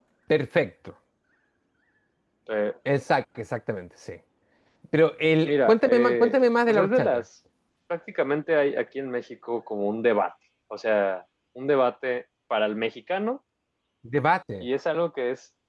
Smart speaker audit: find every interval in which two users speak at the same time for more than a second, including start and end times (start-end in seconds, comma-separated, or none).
5.5-7.2